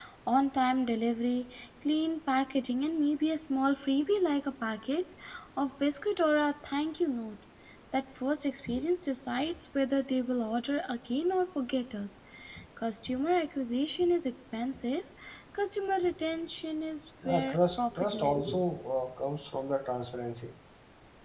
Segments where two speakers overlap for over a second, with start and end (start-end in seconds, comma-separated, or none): 17.3-18.5